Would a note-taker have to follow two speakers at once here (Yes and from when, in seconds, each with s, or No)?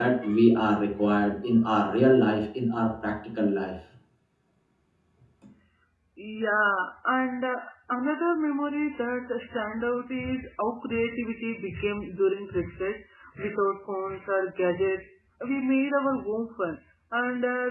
No